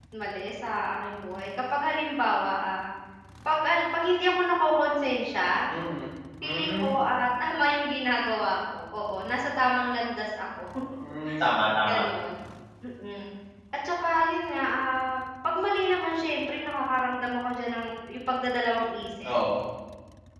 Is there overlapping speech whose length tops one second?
No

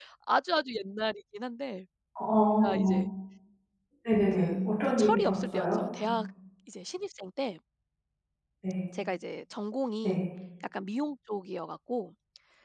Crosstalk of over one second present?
Yes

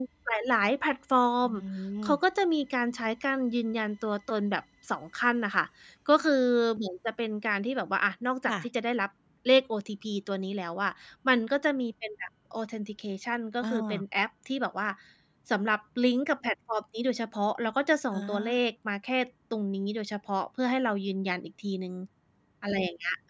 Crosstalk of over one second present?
No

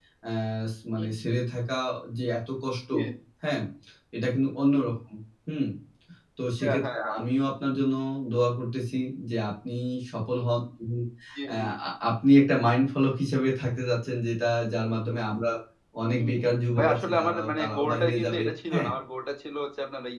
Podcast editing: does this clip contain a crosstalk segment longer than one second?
Yes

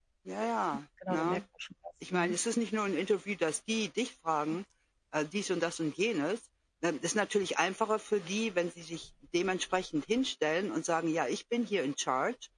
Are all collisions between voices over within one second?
Yes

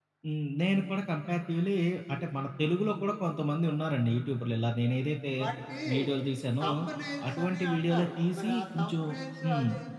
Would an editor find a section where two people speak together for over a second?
Yes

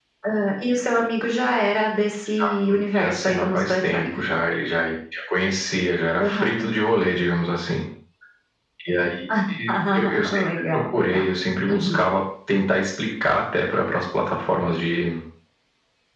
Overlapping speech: Yes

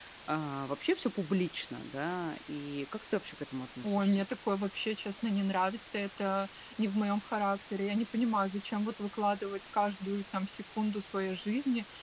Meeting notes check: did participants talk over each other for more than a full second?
No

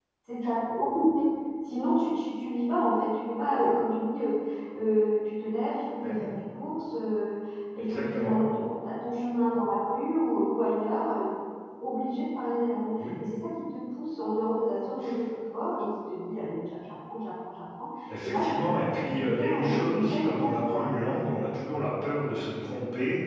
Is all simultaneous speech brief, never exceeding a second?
No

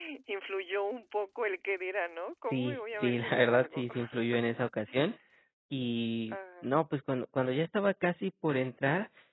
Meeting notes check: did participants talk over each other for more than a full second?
Yes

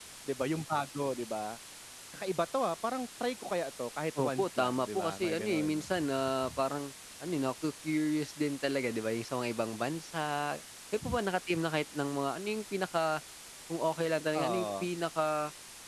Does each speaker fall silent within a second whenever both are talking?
No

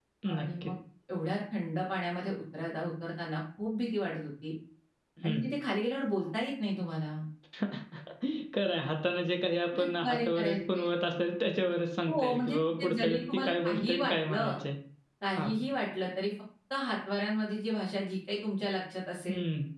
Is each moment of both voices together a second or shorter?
No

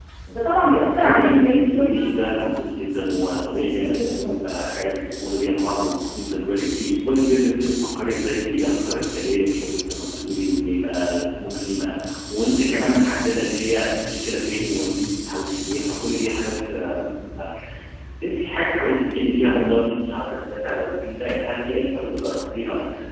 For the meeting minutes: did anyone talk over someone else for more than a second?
Yes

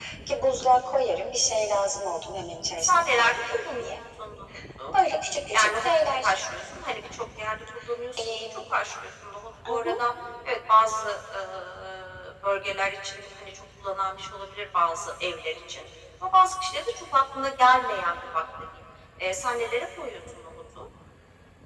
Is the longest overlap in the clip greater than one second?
Yes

